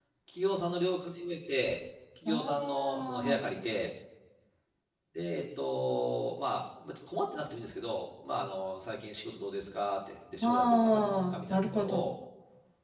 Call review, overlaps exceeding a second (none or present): present